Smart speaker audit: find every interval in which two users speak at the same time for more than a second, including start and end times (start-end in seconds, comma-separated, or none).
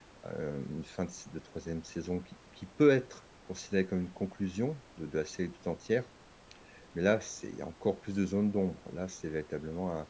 none